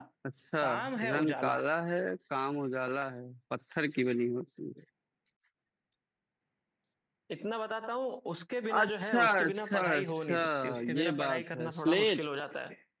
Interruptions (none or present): present